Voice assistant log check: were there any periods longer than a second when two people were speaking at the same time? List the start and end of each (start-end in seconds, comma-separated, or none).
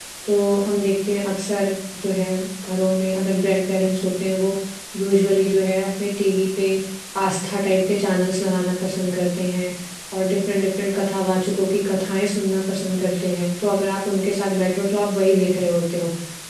none